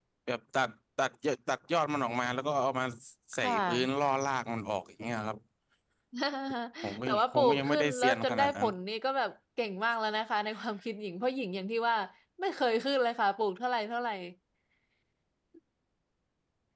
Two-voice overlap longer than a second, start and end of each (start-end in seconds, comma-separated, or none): 7.1-8.7